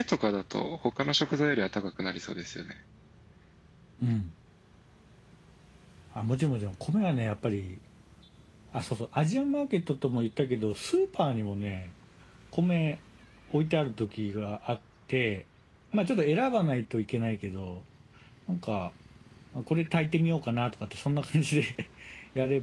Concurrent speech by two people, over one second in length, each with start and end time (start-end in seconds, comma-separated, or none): none